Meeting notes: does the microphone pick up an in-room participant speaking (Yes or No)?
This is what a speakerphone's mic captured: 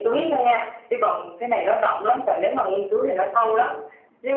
No